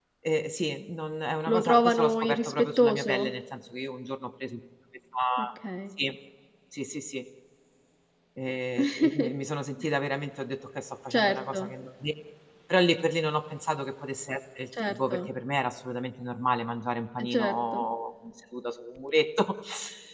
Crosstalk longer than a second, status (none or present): present